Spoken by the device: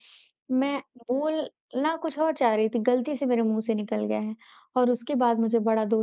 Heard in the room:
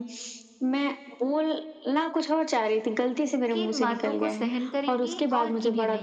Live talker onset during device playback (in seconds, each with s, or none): 3.5 s